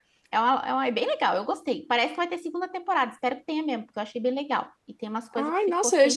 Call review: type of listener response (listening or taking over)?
taking over